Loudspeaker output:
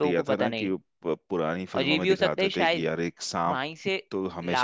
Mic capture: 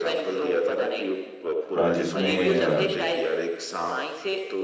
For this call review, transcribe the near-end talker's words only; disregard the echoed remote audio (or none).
अ, जिसमें अ,